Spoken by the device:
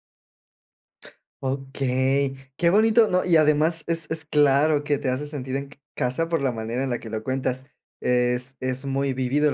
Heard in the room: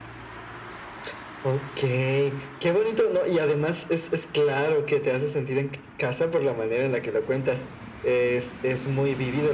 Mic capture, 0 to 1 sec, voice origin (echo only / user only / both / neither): neither